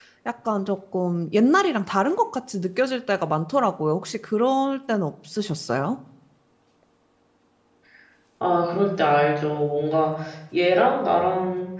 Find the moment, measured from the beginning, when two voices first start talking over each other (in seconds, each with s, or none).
none